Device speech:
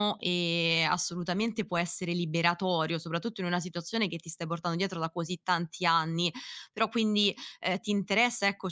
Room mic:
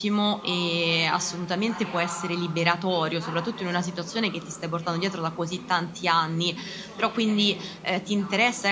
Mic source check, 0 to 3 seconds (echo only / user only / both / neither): both